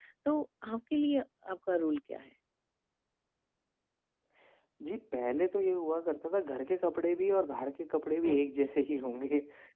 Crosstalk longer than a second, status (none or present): none